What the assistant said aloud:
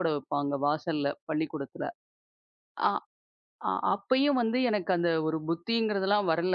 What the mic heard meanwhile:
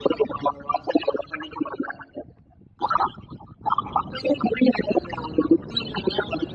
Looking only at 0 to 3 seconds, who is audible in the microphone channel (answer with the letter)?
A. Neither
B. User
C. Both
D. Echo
D